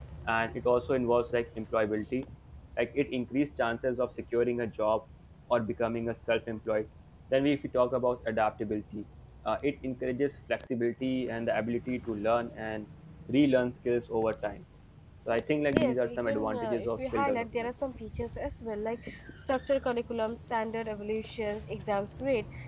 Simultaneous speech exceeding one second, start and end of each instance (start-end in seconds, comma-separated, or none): 15.7-17.7